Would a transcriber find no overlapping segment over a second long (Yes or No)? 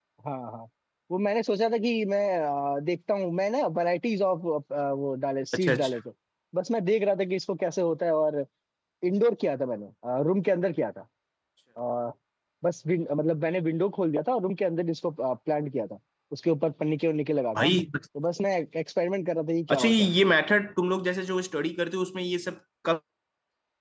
Yes